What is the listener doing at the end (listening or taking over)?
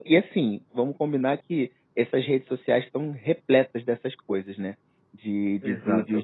listening